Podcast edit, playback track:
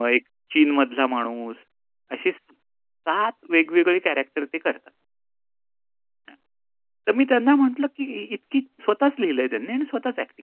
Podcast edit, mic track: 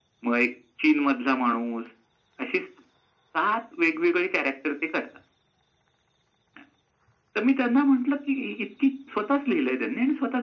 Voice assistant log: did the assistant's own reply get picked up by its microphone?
Yes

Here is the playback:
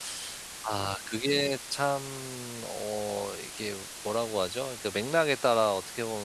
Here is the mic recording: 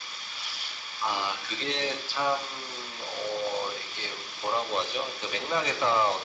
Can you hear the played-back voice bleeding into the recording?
Yes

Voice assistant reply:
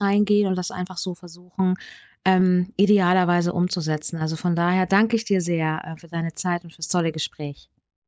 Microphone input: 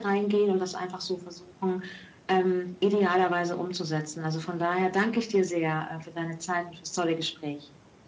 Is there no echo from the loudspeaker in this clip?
No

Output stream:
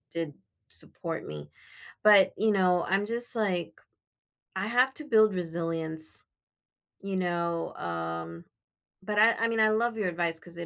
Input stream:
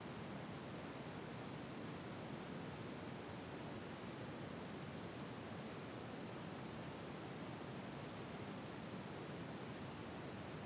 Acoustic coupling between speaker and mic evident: No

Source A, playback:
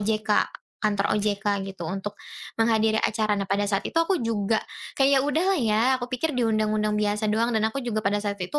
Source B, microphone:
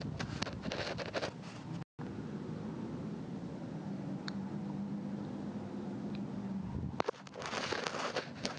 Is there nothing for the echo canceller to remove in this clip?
Yes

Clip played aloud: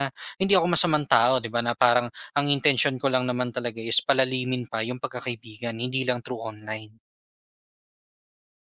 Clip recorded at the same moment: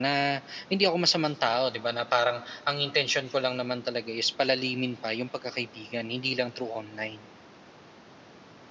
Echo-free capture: No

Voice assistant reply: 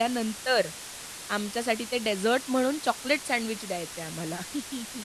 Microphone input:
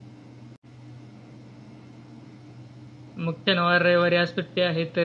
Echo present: No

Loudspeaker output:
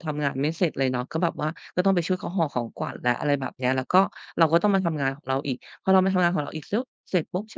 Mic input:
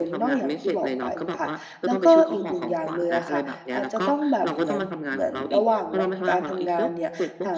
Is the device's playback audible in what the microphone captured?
Yes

